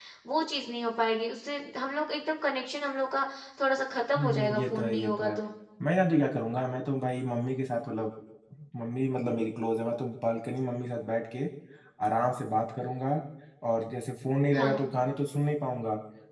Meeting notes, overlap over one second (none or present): present